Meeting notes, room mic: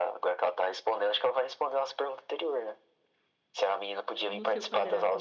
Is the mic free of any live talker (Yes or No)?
No